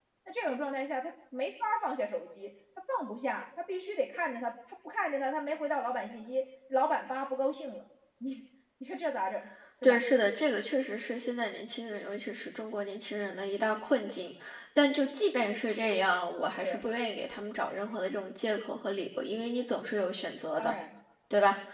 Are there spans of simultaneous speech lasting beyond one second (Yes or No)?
No